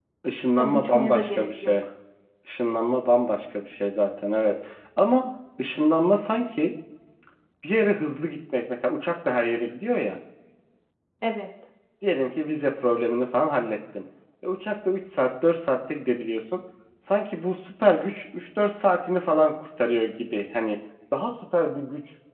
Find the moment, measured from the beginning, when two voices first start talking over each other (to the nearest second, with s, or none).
1 s